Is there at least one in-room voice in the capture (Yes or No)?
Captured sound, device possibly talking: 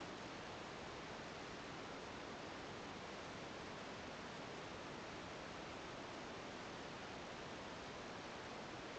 No